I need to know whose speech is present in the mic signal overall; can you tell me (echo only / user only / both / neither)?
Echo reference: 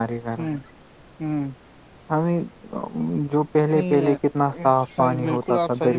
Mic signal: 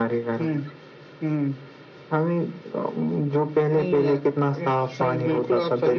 echo only